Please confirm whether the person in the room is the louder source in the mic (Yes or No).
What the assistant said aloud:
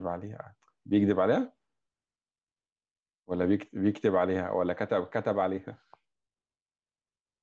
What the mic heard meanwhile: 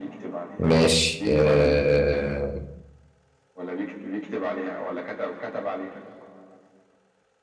Yes